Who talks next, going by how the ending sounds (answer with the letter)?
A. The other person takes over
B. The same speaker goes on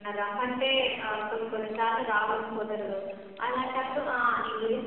B